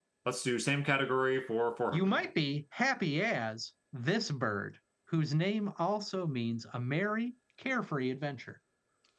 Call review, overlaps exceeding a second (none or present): none